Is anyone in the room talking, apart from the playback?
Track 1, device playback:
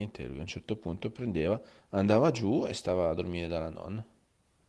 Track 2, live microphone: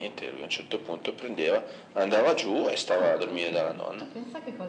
Yes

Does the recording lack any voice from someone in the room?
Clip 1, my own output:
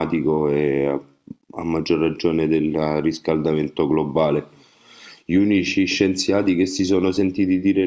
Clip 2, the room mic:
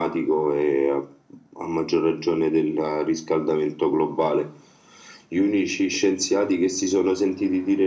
Yes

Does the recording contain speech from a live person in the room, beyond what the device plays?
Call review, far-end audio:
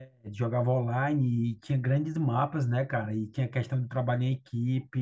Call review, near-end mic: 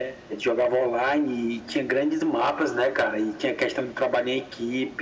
No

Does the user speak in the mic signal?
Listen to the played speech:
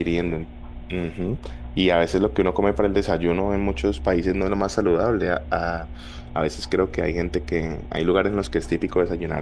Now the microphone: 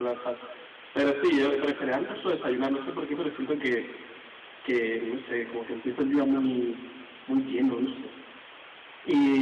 Yes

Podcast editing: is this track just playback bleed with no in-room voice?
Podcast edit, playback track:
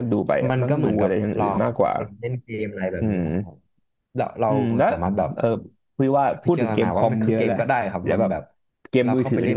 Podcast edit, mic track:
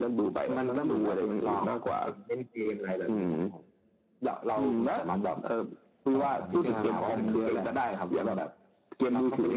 No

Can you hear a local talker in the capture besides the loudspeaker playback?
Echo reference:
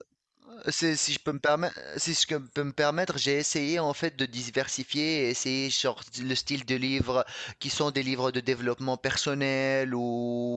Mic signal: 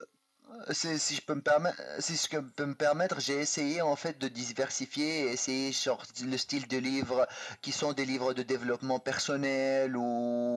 No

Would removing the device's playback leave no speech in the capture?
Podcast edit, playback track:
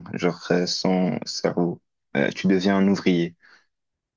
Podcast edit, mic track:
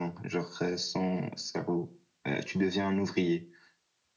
Yes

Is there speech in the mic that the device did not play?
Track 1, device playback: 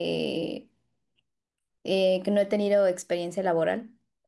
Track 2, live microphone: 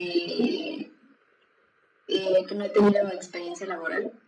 No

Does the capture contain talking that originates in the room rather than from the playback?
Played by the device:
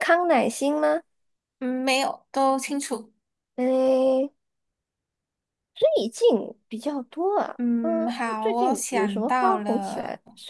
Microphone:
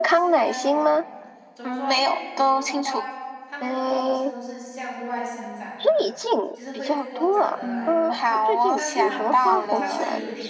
Yes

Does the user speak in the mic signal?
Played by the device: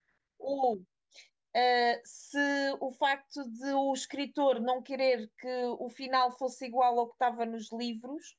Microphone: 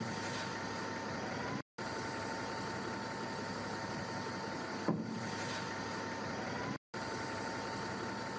No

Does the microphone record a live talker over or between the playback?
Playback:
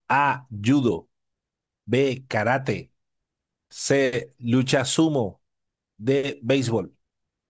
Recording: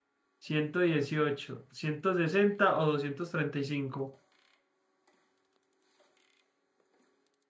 Yes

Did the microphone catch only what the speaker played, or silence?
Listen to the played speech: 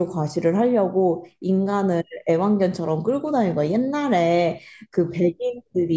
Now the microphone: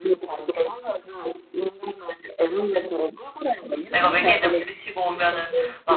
No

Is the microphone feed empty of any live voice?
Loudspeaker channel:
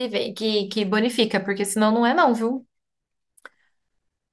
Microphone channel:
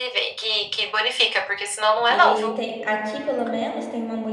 No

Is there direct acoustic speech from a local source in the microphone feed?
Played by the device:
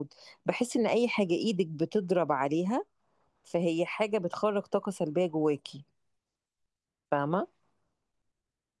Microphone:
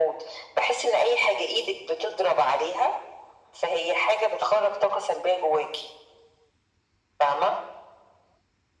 No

